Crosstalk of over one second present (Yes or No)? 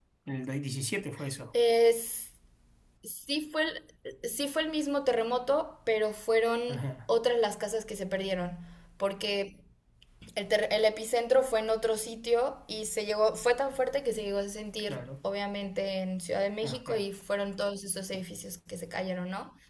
No